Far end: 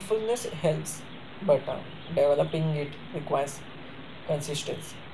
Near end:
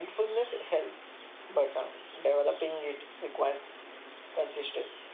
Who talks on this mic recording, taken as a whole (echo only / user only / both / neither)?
echo only